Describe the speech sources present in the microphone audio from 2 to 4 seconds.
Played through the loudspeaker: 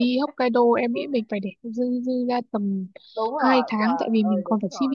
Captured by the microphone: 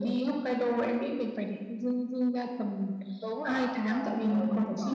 echo only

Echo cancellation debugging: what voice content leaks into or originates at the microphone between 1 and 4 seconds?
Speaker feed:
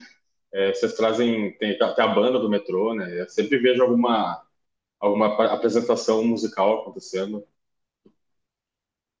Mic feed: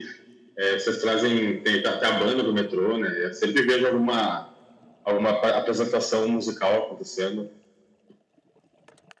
echo only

